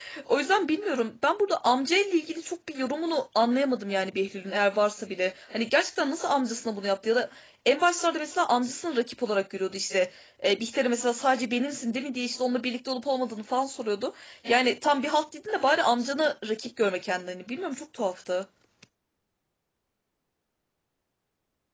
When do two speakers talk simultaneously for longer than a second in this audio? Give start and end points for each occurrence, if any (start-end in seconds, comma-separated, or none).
none